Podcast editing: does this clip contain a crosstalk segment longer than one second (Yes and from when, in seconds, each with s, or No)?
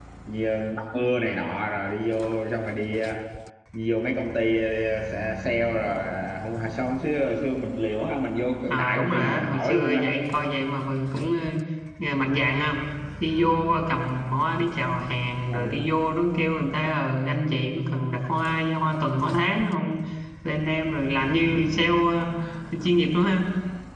Yes, from 8.7 s